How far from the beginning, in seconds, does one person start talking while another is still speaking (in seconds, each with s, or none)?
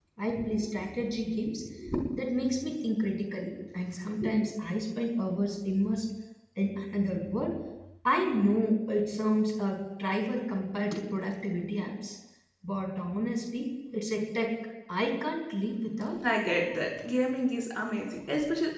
none